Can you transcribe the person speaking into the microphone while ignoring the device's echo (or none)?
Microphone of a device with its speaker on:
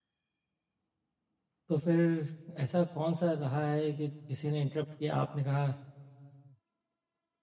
तो फिर ऐसा कौन-सा रहा है कि किसी ने इंटरप्ट किया, आपने कहा,